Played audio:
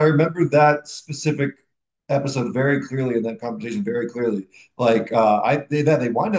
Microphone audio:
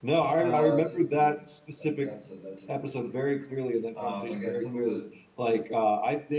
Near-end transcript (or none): oh, that's a really good one. That's that's a that's a really really good one. Um, again, some of the